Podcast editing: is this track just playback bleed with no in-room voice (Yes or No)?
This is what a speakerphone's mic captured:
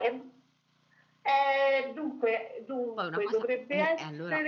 No